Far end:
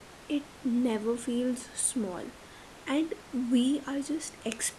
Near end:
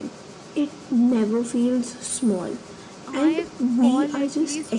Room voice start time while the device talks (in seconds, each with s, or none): 3.0 s